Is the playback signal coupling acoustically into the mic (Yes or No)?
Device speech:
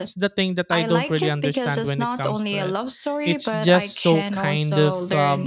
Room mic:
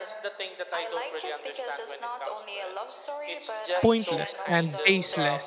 Yes